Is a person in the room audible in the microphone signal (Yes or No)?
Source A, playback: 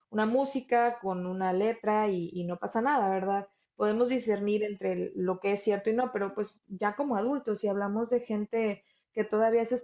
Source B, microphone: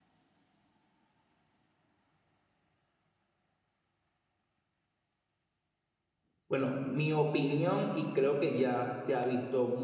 Yes